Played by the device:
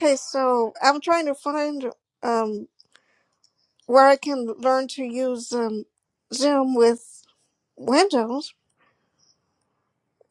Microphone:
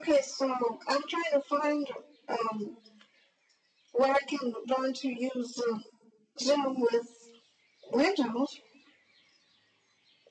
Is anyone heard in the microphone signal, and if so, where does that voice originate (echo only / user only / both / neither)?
echo only